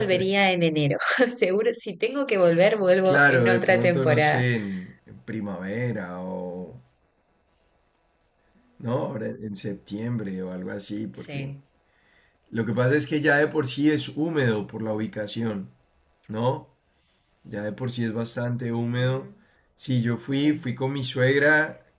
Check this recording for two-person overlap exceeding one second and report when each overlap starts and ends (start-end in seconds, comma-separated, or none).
3.0-4.4